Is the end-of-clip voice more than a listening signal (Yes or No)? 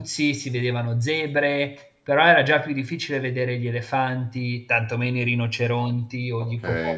Yes